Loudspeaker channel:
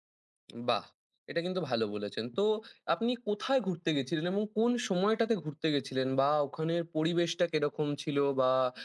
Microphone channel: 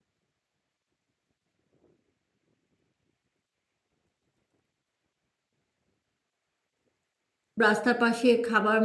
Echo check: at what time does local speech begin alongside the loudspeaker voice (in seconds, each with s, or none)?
7.7 s